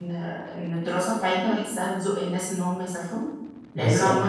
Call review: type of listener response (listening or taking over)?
listening